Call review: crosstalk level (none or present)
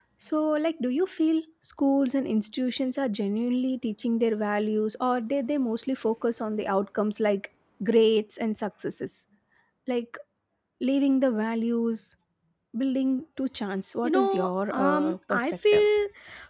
present